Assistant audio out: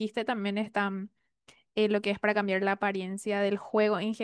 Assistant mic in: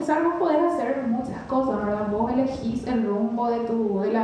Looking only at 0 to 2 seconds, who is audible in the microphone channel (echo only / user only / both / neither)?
user only